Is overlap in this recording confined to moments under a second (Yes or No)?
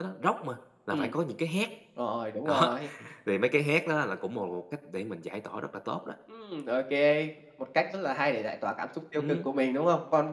Yes